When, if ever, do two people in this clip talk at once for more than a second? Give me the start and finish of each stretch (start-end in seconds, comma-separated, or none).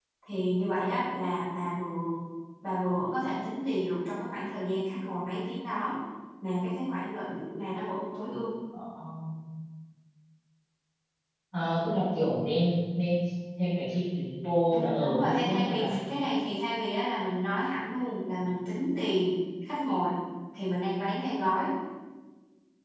14.7-16.0